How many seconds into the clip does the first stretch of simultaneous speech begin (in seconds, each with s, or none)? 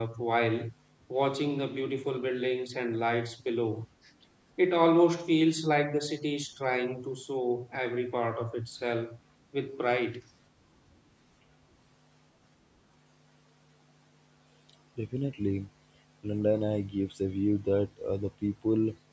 none